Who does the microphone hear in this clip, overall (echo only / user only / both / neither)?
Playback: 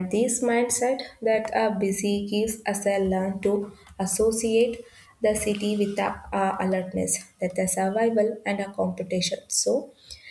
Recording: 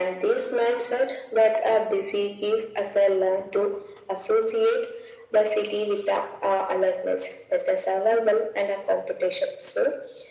echo only